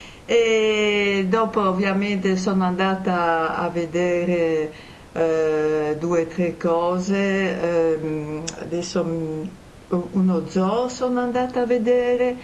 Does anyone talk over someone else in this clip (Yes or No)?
No